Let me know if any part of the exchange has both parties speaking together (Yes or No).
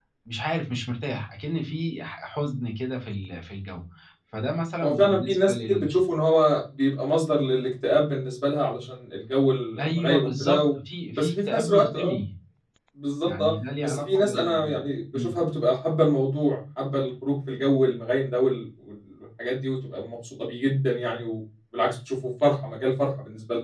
Yes